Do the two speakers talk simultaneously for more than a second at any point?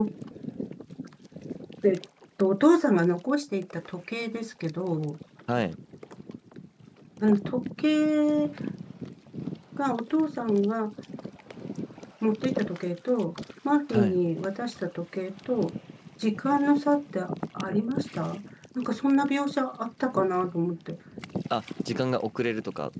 No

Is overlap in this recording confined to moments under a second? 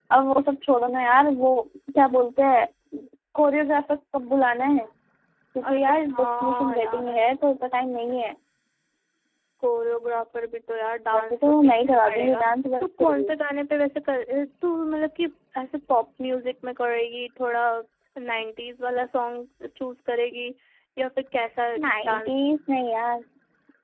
No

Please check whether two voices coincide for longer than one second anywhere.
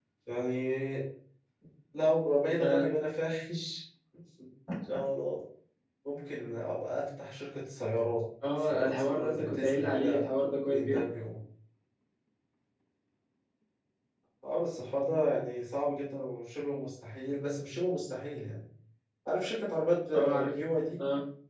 Yes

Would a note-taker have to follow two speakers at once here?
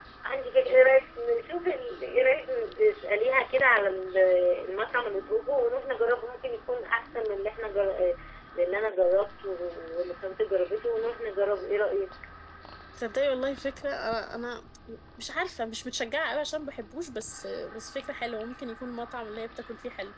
No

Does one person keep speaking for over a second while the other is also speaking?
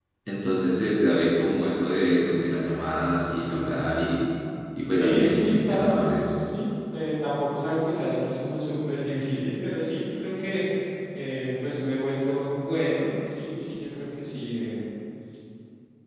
Yes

